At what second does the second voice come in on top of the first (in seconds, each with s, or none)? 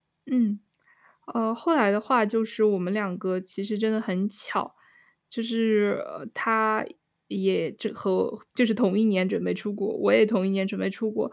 none